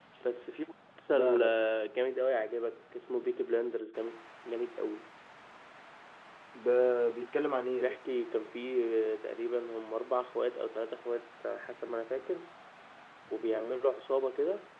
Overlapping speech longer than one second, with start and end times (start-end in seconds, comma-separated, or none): none